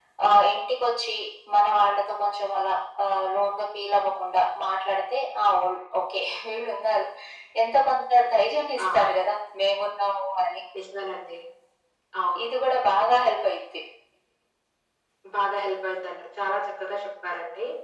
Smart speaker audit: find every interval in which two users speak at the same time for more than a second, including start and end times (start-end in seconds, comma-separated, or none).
none